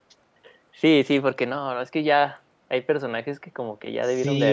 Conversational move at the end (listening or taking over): taking over